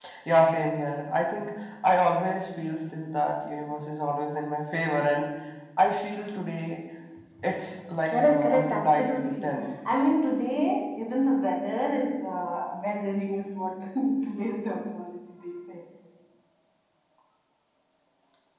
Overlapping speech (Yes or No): Yes